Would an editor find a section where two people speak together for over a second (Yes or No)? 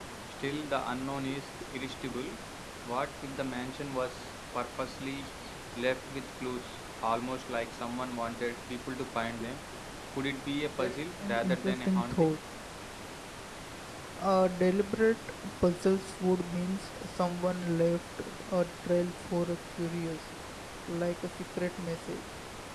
Yes